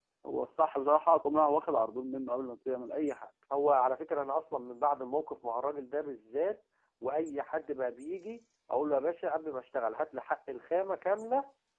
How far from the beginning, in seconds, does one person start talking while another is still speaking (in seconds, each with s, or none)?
none